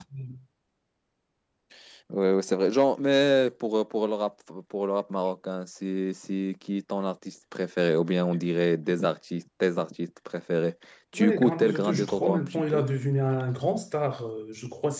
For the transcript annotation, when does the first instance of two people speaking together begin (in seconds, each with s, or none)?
11.1 s